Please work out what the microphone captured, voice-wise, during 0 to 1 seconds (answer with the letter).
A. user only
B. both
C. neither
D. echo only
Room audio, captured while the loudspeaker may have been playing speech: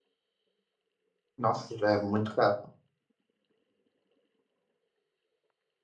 C